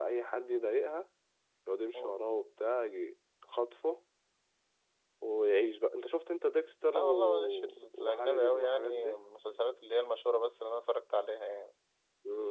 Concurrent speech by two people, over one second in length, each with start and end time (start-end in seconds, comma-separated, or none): 6.8-9.2